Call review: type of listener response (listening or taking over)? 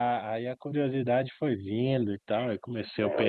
taking over